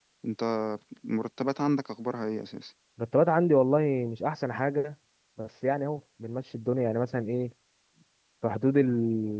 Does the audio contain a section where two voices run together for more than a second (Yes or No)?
No